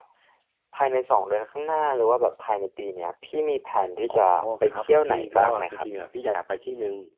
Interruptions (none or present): present